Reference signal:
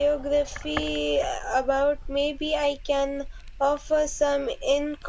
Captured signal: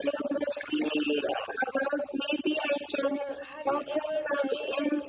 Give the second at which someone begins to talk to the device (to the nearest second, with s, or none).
3 s